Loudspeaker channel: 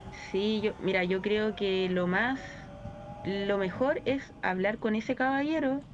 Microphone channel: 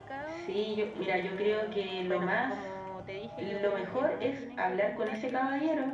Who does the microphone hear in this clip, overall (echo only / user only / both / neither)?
both